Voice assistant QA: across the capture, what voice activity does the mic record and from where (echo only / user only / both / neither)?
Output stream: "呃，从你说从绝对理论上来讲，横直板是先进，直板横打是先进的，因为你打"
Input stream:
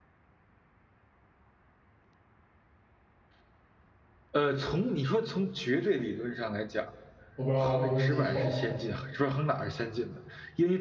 both